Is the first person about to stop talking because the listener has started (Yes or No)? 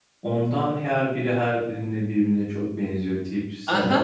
Yes